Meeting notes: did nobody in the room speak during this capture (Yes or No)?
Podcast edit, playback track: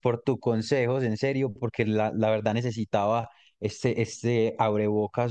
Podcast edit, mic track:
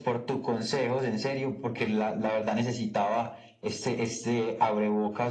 Yes